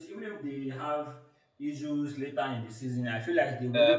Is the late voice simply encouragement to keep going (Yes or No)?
No